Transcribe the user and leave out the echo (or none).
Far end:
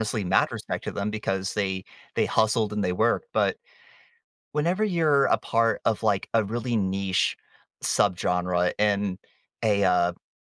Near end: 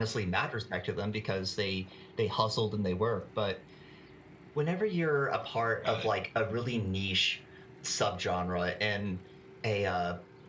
got it.